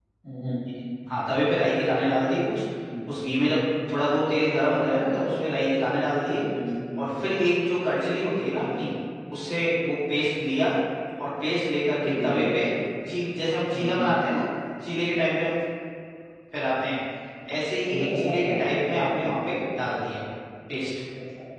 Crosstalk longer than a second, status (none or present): present